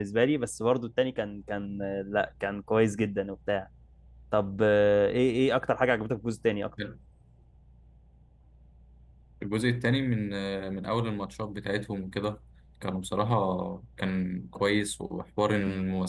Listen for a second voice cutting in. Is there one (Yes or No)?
No